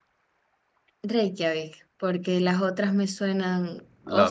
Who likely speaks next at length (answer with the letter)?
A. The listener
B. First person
B